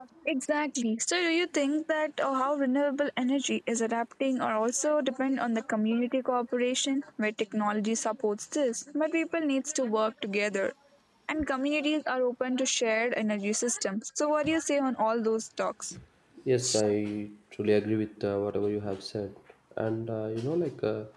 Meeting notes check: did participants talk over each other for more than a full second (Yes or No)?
No